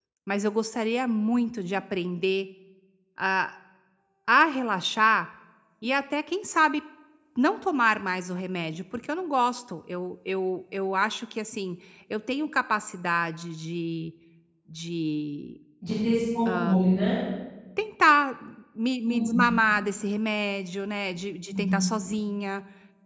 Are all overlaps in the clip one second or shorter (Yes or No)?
Yes